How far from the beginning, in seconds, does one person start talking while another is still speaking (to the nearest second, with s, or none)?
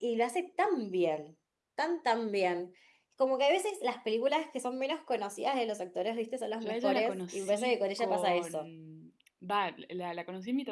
7 s